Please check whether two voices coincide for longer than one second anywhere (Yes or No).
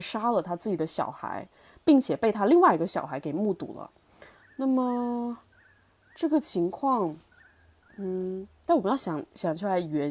No